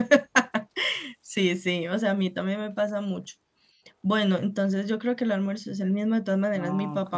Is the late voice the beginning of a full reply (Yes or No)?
No